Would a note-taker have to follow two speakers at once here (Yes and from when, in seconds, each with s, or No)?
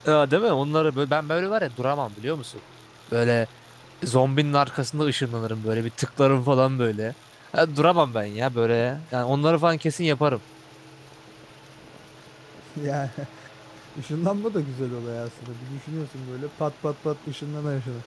No